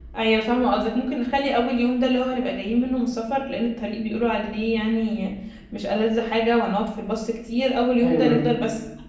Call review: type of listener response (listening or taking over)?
listening